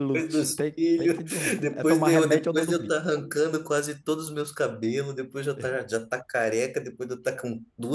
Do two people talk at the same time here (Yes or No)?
Yes